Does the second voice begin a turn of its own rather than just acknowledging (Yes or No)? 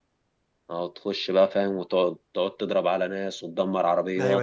Yes